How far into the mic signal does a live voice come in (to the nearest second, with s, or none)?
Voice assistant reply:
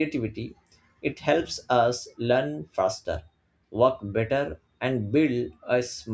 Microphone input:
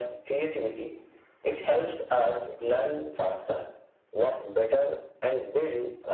none